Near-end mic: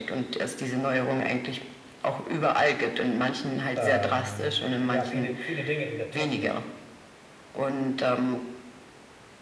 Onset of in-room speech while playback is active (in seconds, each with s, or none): 3.8 s